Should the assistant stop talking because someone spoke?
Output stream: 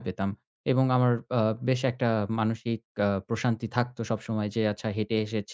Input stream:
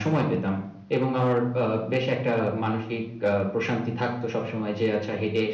No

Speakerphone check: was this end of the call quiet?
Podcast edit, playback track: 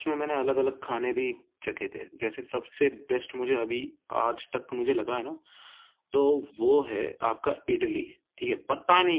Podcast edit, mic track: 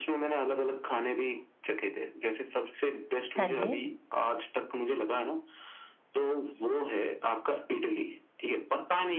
No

